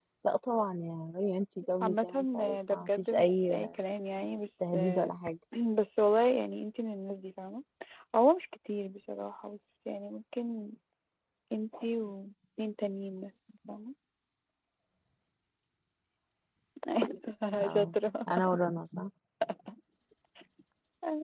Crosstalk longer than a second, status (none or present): present